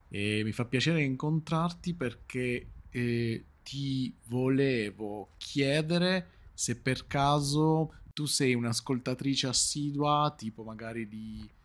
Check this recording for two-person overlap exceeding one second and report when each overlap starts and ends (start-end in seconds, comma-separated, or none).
none